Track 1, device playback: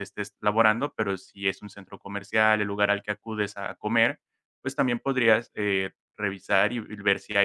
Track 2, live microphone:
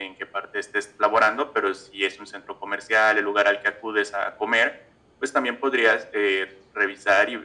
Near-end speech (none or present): none